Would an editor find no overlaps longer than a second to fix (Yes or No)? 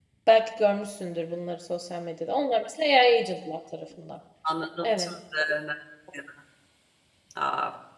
Yes